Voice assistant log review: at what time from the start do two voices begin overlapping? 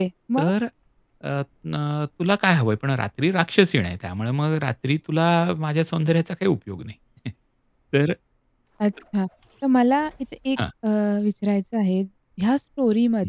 none

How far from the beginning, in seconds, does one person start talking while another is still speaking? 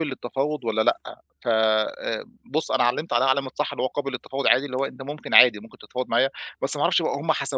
none

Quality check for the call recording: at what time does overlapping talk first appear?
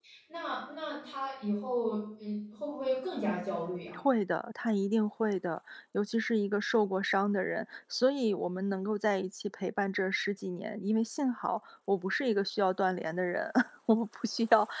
none

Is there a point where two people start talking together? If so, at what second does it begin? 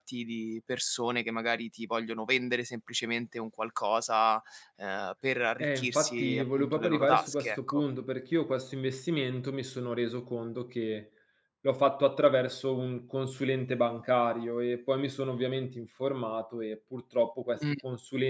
6 s

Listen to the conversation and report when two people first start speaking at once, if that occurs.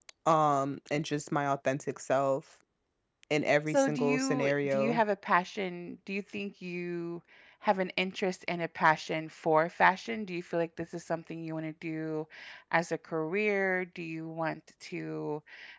4 s

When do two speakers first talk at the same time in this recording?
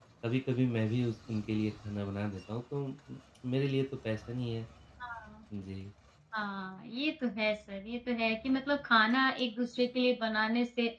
none

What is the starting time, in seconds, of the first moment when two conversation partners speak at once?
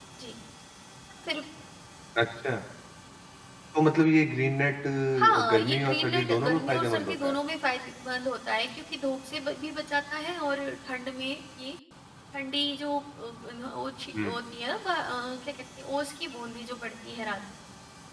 5 s

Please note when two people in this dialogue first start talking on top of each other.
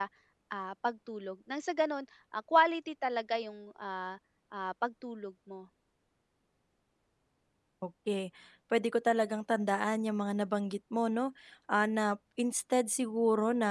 none

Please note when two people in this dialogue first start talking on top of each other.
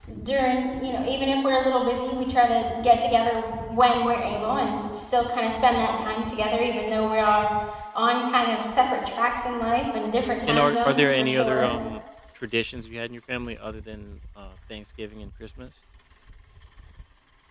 10 s

